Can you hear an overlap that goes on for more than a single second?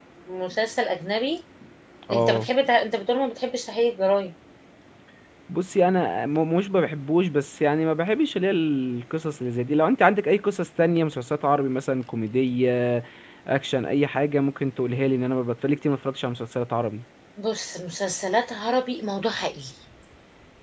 No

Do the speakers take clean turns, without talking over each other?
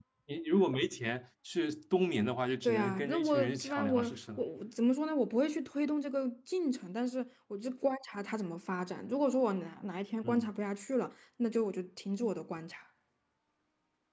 No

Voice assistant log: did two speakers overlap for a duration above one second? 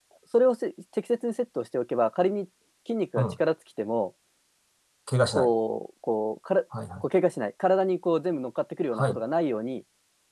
No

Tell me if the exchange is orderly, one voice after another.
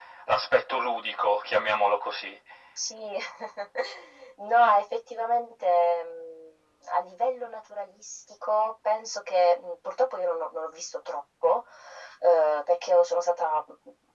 Yes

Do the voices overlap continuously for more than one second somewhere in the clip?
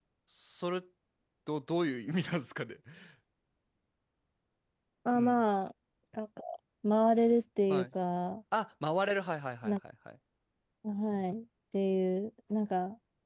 No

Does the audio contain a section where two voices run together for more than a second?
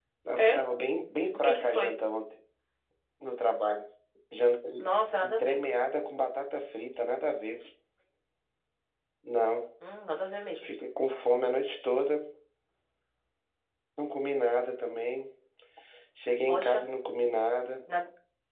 No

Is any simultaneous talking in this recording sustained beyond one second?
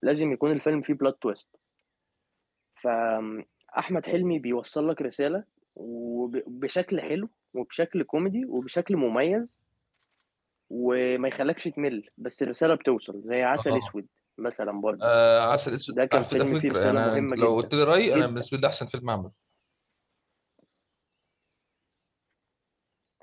Yes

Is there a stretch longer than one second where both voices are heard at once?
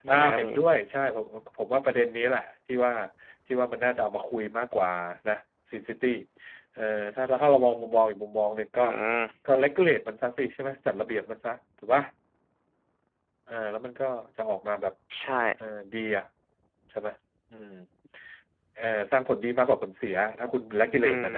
No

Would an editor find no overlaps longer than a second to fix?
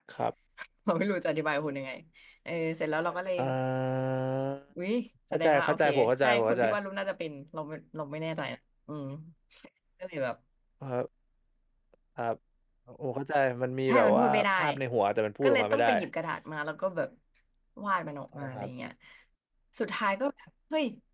No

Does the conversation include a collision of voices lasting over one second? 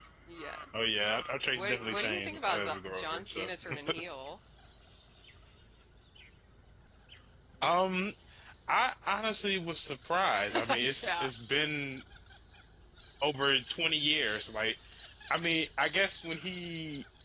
Yes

